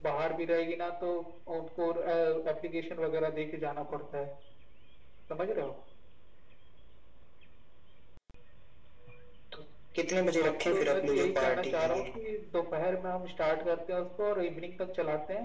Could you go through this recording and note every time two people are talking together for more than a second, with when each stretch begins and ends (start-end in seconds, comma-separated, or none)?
10.4-12.0